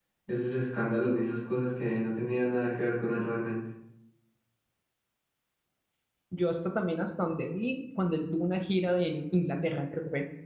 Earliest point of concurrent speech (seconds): none

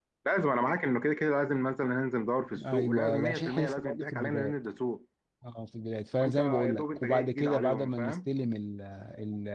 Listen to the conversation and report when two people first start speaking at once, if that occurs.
2.7 s

